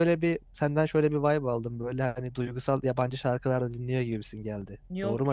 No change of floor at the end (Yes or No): No